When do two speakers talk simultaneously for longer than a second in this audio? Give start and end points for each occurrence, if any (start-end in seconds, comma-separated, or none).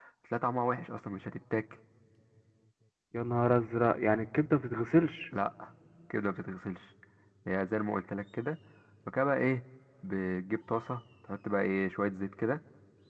none